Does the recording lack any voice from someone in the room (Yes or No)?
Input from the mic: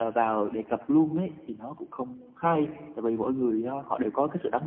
Yes